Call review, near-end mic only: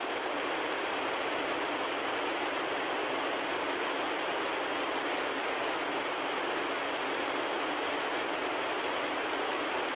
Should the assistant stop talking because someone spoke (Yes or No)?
No